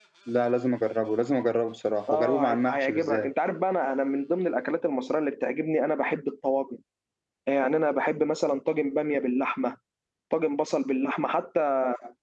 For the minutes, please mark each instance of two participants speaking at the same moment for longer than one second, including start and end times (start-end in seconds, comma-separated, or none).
2.1-3.3